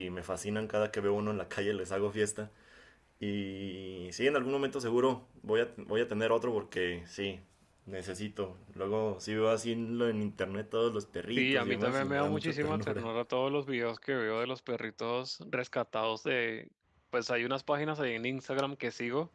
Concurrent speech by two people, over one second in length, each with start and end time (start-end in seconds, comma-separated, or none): 11.4-13.1